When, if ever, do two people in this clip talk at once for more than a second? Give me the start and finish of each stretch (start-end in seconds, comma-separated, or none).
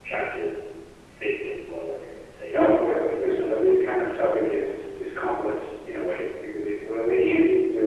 2.5-4.2